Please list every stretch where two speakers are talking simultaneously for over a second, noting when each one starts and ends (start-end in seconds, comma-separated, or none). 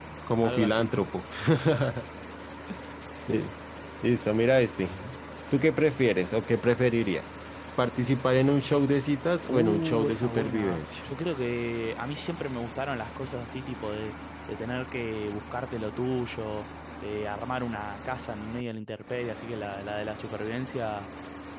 9.5-10.8